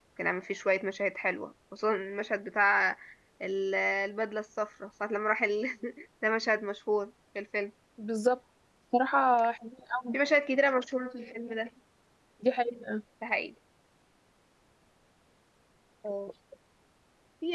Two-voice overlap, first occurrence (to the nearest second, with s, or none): none